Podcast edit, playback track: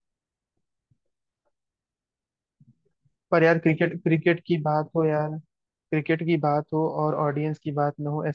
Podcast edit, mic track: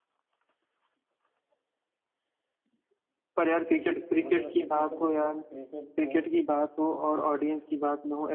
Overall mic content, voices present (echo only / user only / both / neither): both